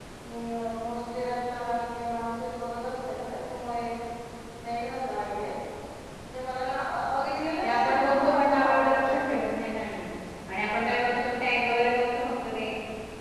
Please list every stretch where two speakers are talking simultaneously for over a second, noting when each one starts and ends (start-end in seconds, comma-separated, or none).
7.6-9.5